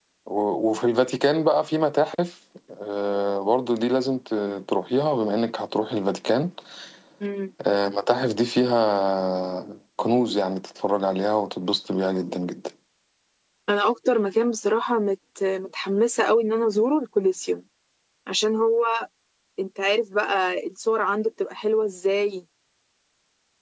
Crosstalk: none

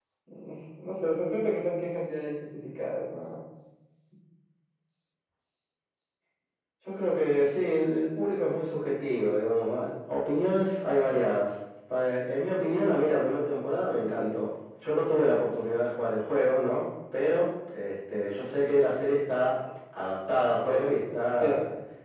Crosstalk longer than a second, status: none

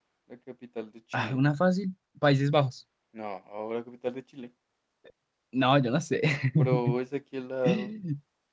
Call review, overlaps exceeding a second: none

